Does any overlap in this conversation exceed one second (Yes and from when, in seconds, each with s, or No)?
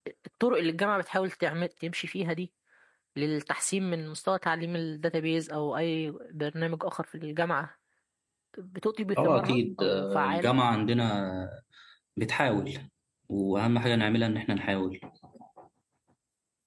Yes, from 9.2 s